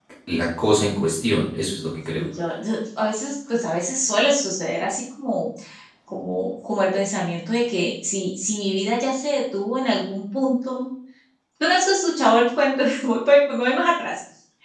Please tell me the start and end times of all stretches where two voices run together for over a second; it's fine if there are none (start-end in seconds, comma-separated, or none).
none